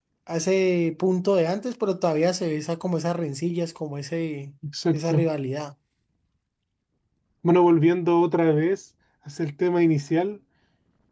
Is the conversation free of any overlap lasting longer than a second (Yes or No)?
Yes